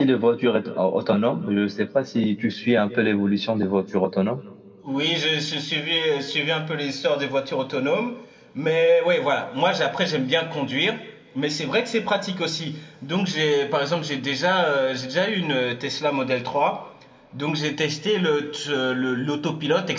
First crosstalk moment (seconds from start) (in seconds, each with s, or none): none